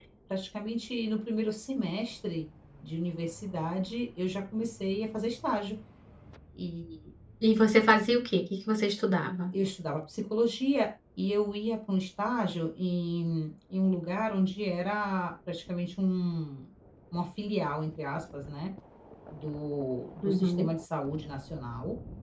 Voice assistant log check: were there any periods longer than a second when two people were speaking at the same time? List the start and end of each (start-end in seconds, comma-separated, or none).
none